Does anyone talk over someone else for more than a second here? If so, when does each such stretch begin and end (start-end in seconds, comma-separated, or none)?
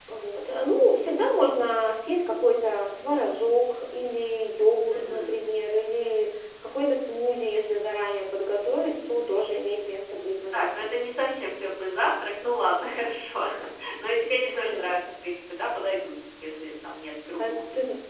none